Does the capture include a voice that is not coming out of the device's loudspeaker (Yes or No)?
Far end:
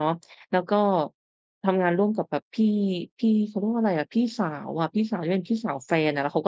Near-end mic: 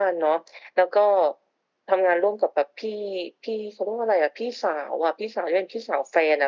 No